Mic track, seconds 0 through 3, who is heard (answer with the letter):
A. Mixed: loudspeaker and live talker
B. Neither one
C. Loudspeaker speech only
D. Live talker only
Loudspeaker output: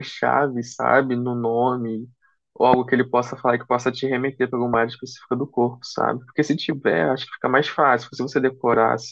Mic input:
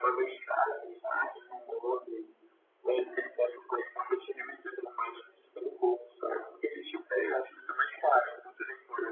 C